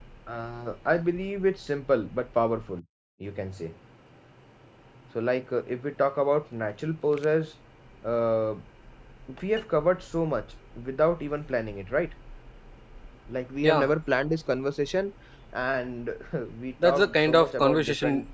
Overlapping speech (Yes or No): Yes